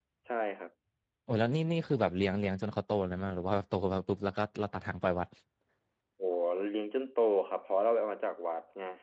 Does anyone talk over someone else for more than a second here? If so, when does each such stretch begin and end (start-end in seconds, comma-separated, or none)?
none